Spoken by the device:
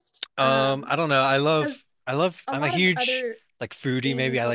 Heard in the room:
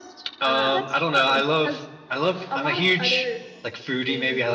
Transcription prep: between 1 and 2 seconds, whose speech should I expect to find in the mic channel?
both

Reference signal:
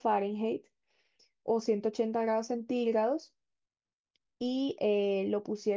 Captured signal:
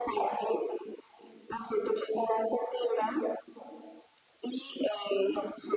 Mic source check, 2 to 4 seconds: echo only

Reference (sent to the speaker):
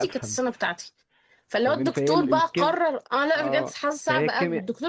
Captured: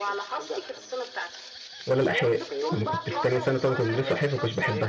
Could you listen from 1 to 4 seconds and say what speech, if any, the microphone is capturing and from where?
both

